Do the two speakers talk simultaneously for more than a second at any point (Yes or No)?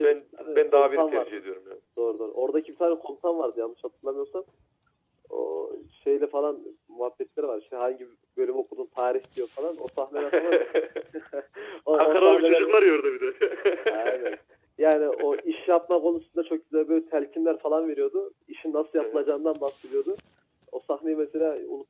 Yes